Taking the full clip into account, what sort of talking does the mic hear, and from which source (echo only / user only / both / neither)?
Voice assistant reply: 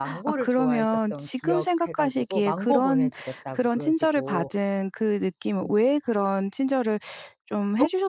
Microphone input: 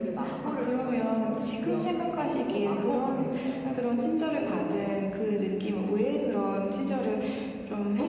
echo only